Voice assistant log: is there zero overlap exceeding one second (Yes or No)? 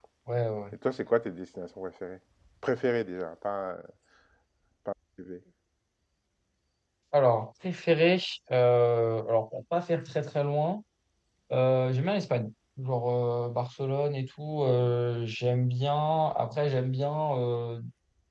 Yes